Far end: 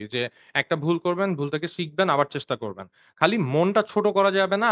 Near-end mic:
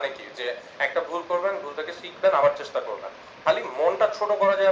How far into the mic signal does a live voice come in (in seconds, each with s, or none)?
none